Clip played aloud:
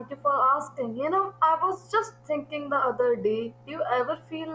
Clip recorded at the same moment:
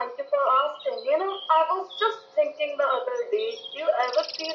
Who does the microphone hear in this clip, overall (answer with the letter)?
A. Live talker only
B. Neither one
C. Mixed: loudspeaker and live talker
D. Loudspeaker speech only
D